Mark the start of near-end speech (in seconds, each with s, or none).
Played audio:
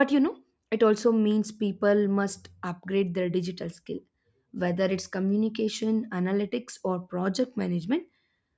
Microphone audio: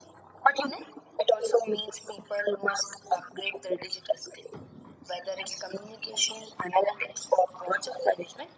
none